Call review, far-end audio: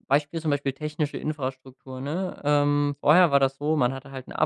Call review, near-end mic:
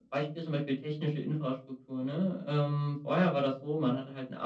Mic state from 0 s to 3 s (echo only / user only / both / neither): echo only